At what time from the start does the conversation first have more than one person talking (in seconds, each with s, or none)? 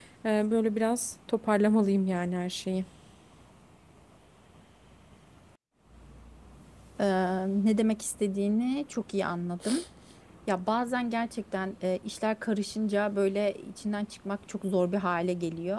none